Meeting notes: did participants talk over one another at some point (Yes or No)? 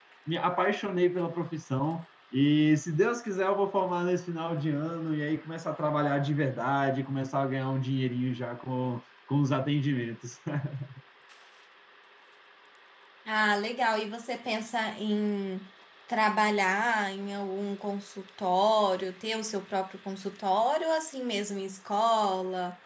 No